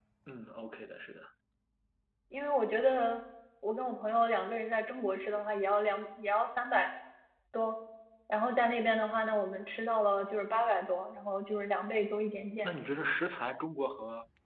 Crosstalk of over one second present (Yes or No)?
No